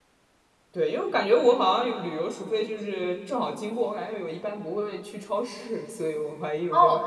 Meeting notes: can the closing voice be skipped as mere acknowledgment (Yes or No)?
No